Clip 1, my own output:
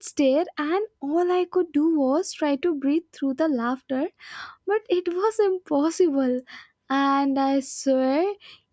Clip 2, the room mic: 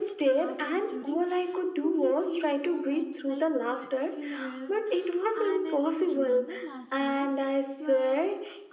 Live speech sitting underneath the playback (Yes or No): Yes